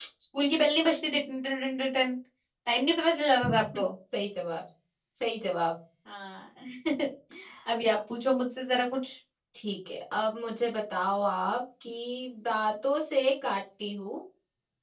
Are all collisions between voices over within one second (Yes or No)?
Yes